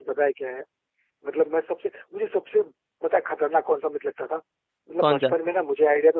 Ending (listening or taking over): listening